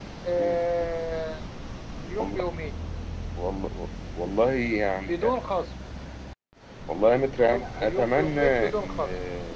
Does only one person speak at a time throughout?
No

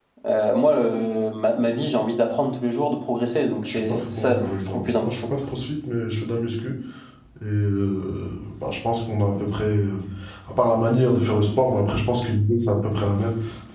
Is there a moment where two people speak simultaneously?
Yes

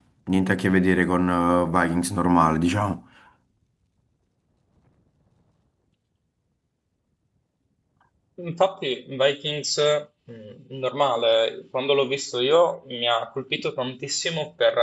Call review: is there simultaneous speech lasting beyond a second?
No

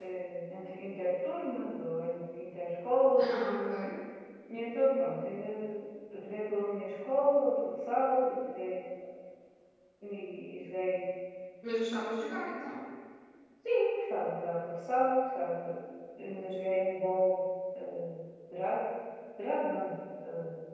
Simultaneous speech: No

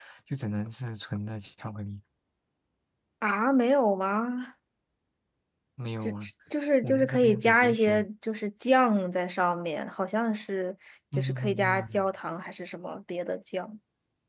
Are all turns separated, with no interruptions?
No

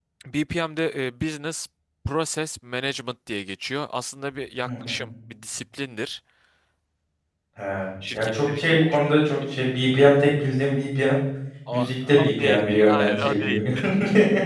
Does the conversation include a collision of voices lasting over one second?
Yes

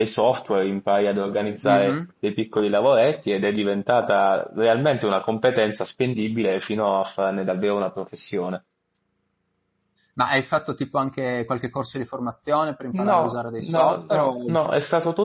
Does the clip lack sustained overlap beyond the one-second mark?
No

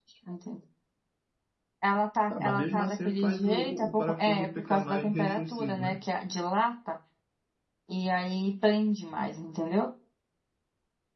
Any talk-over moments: Yes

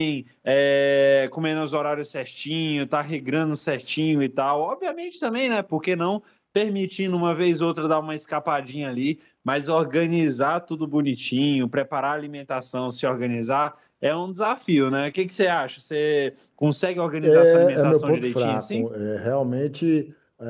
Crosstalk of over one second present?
Yes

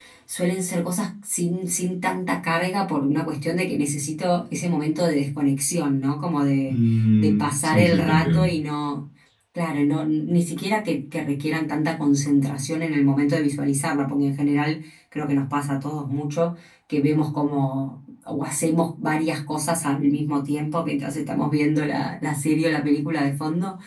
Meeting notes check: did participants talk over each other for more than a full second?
Yes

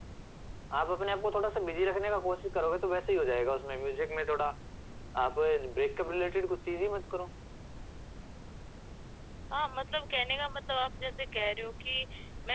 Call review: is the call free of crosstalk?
Yes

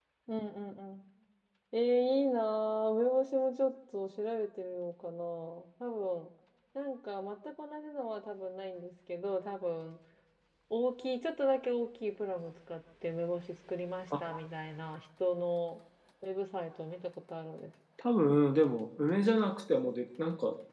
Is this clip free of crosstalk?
Yes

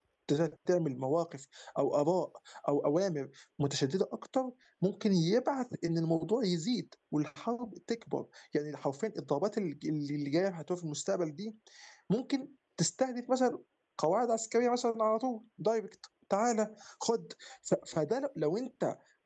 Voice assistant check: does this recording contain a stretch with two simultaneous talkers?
No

